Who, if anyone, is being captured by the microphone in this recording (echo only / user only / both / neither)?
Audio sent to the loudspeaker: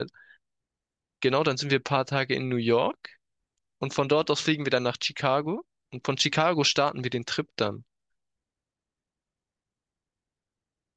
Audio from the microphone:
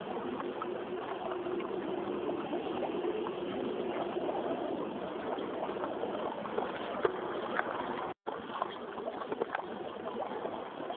neither